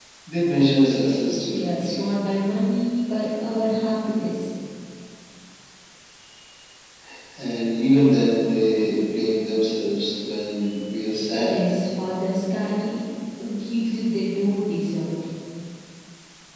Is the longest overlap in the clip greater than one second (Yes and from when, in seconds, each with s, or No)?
No